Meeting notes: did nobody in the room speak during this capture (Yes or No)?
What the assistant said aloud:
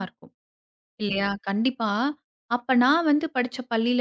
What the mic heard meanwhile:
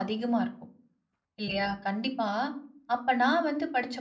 Yes